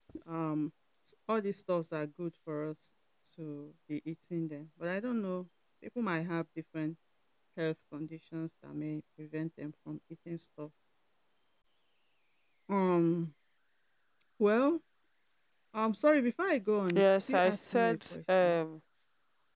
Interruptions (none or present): present